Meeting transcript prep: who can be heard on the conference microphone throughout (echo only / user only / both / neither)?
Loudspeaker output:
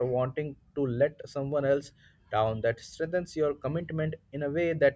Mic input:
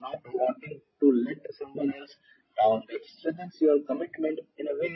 echo only